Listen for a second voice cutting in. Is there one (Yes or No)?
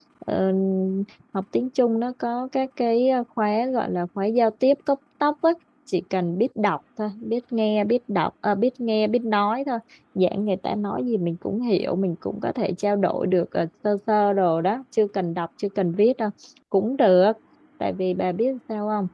No